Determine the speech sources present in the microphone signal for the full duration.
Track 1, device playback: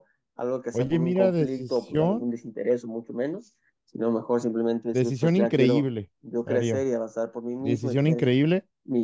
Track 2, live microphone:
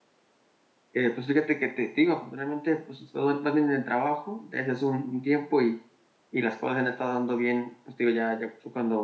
user only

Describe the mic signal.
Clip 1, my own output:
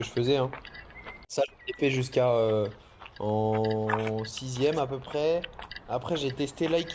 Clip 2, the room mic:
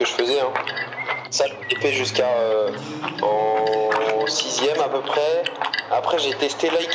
both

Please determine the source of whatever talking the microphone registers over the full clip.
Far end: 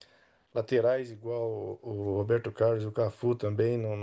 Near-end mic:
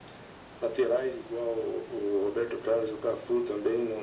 echo only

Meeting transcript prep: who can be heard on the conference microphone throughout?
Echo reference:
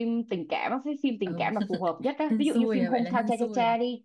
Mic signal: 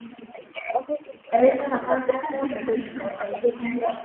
both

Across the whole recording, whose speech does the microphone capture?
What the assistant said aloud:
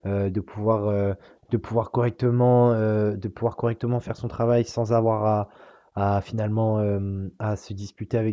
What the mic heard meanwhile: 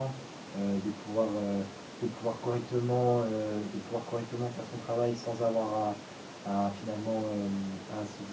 echo only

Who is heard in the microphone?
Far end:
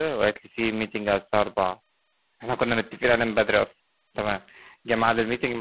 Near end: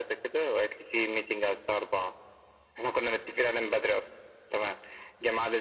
echo only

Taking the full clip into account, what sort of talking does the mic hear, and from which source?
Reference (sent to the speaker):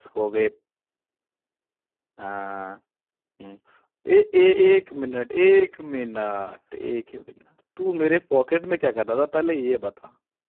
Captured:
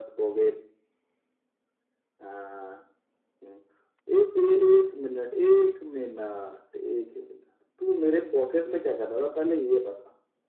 echo only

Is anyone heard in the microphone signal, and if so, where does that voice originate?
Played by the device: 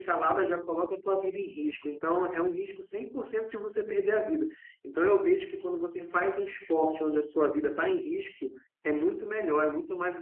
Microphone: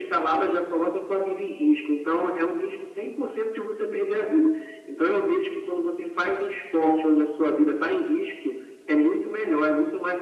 echo only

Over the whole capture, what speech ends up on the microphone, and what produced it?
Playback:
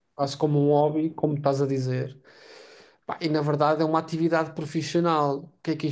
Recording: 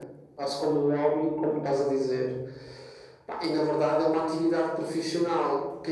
echo only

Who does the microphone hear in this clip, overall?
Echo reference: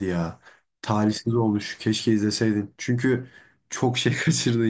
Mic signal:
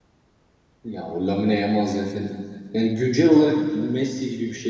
user only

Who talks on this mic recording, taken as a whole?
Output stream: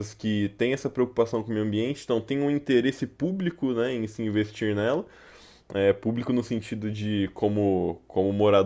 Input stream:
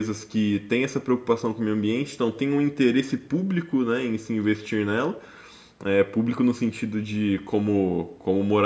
echo only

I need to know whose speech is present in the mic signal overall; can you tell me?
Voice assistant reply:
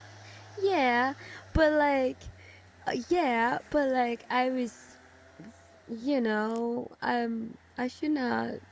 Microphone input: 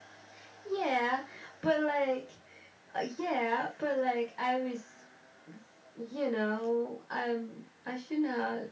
echo only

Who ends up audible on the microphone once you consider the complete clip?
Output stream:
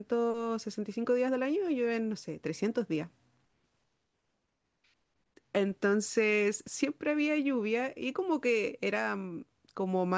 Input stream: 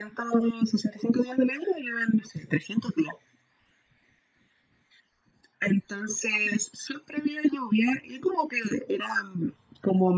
echo only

